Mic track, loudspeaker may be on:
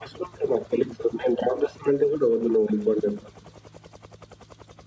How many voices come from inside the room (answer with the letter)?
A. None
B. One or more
A